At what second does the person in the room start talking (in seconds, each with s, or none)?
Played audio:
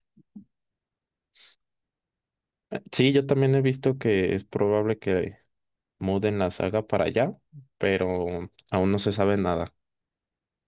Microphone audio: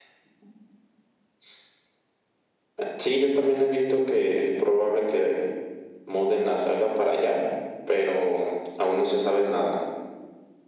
none